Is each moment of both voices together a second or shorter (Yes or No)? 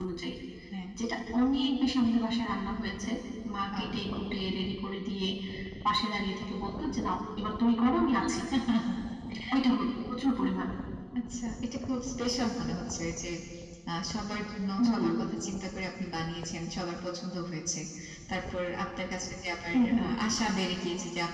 Yes